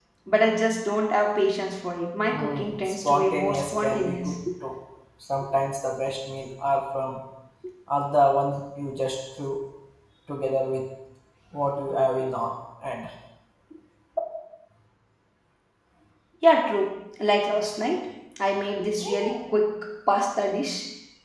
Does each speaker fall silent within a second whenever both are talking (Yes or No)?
No